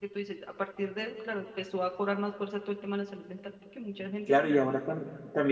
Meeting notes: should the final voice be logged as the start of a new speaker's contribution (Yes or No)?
Yes